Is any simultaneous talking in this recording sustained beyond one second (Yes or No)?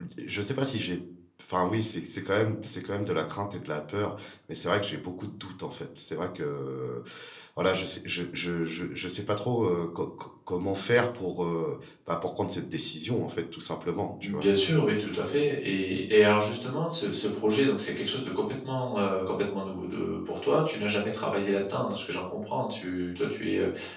No